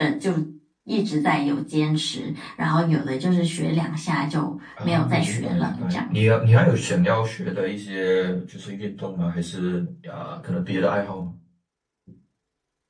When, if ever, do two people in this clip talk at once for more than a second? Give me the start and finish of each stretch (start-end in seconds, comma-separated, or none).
4.8-6.2